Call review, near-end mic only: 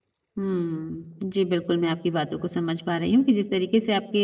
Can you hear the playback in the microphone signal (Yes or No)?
No